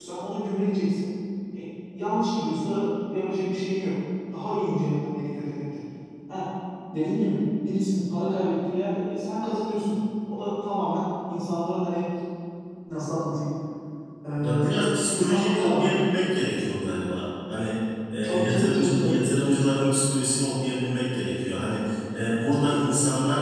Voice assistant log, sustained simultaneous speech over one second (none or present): present